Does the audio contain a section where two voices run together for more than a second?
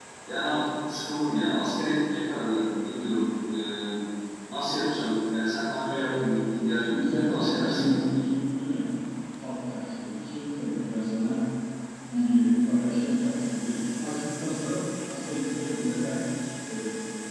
Yes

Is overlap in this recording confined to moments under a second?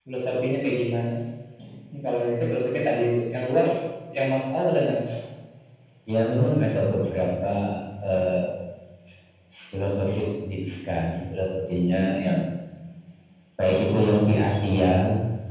Yes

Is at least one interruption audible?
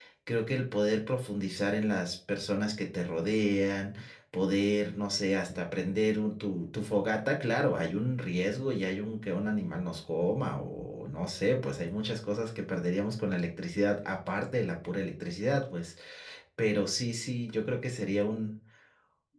No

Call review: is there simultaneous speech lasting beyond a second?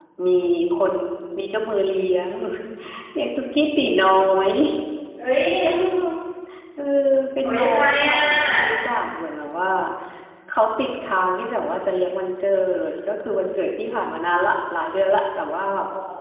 Yes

